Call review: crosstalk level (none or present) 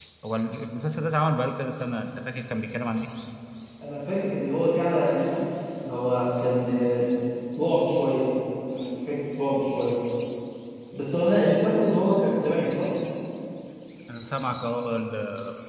none